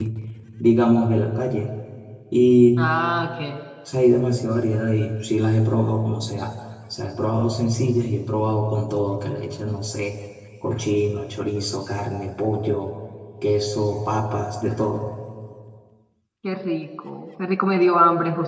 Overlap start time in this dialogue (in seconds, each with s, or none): none